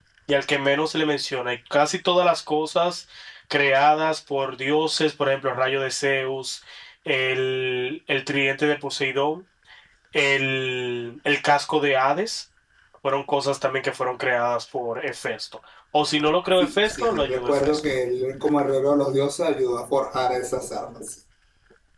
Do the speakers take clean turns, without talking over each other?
No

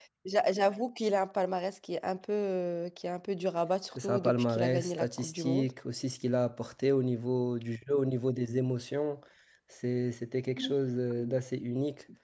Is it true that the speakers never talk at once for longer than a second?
No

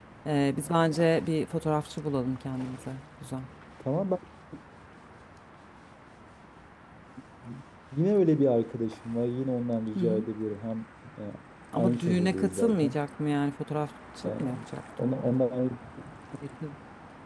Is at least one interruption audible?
Yes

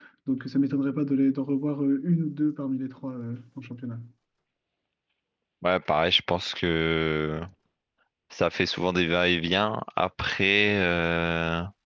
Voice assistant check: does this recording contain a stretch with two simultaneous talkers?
No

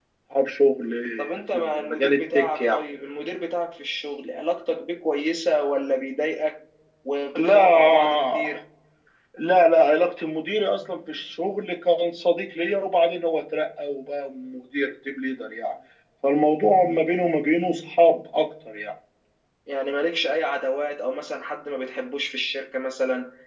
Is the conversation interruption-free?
No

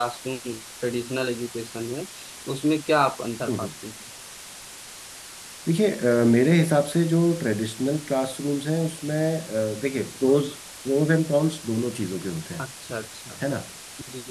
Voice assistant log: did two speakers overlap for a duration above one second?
No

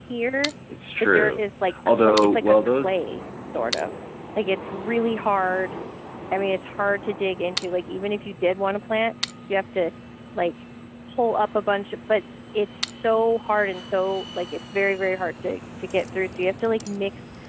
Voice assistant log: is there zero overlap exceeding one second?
No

